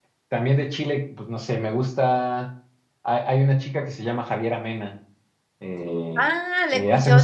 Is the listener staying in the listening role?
No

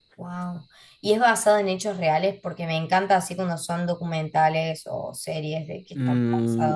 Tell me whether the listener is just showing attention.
No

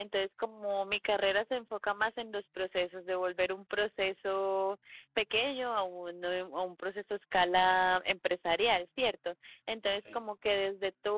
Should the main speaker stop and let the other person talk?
No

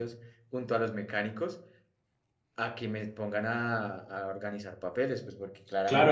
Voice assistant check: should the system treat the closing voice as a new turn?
Yes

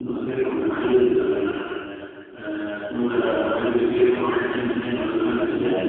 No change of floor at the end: Yes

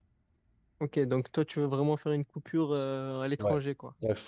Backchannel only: No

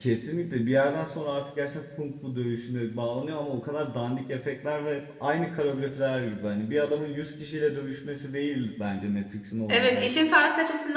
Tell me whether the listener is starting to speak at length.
Yes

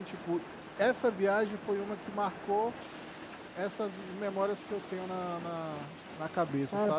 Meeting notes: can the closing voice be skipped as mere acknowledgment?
No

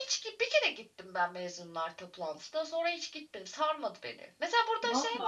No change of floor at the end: Yes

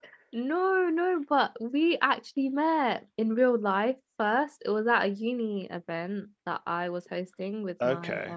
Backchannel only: Yes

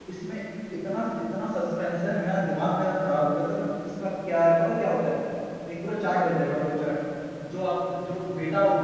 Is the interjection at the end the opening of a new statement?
No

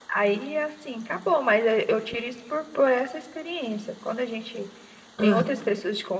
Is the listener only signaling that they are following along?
Yes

